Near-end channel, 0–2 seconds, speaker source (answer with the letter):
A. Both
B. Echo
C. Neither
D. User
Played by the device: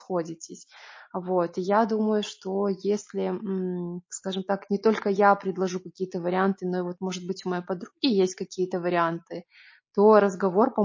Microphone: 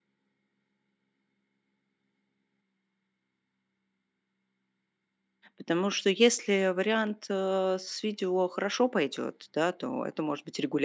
C